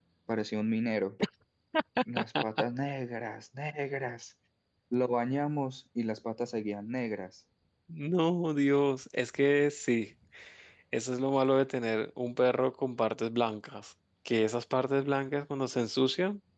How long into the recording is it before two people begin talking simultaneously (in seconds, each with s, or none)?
none